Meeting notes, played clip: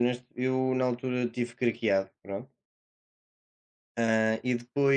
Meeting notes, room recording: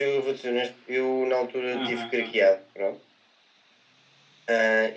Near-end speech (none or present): present